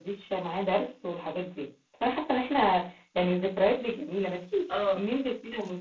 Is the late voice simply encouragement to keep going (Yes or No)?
Yes